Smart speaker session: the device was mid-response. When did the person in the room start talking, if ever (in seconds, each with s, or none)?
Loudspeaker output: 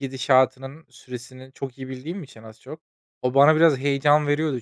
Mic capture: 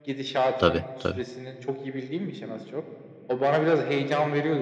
0.6 s